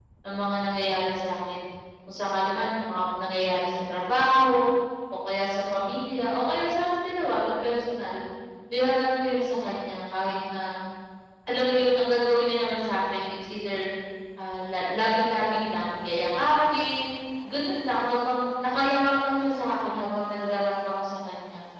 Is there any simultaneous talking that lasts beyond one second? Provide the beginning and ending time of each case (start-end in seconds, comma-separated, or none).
none